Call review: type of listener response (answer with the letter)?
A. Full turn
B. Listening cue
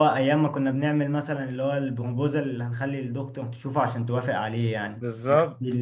B